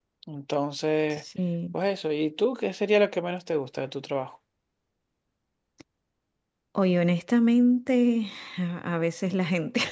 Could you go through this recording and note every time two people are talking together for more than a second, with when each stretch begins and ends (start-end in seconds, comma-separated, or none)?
none